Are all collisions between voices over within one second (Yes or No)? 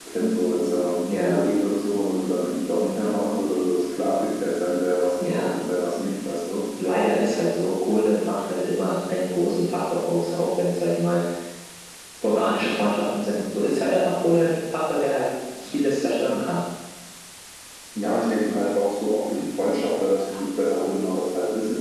Yes